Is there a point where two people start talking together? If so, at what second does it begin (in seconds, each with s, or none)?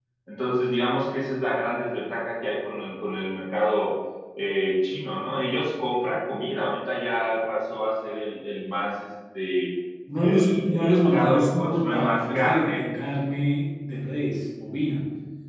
10.2 s